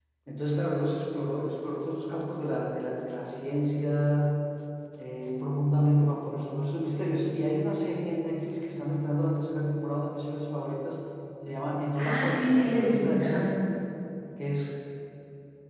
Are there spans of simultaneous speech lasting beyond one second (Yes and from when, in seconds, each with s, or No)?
Yes, from 12.0 s